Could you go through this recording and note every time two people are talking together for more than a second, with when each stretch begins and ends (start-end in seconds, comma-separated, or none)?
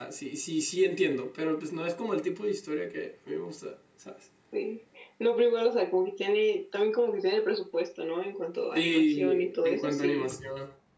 8.8-10.3